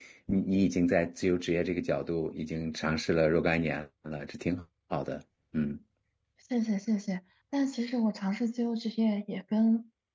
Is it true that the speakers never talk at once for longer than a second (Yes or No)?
Yes